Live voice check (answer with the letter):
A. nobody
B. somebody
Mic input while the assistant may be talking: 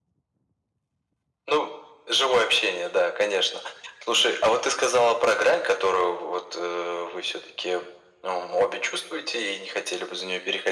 A